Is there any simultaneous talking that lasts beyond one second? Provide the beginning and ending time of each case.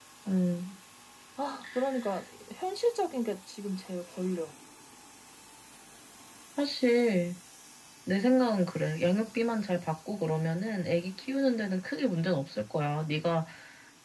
none

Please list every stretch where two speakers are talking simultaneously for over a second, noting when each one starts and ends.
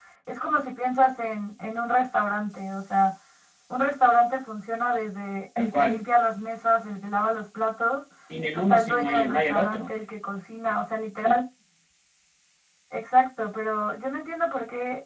8.7-9.9

